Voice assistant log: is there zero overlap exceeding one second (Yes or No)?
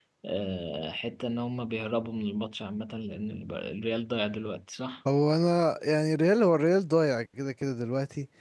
Yes